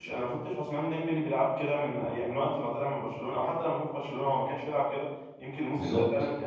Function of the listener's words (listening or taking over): listening